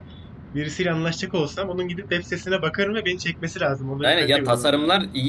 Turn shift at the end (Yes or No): Yes